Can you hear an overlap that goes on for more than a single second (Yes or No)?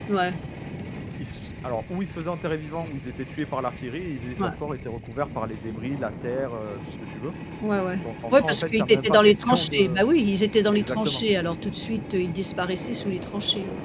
Yes